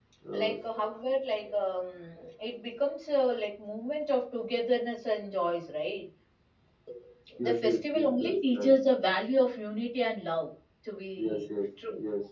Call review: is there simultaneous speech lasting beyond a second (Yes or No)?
Yes